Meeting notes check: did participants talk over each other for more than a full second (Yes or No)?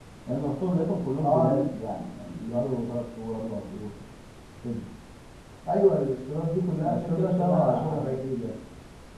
Yes